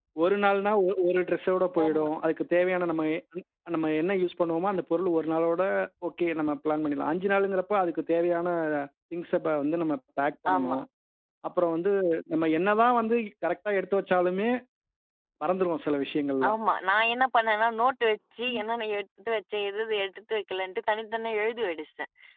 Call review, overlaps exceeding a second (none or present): none